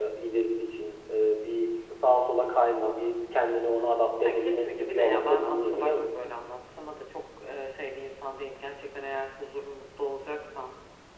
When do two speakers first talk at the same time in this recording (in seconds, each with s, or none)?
4.1 s